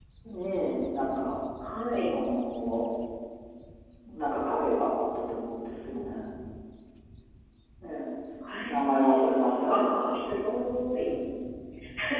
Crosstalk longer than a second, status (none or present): present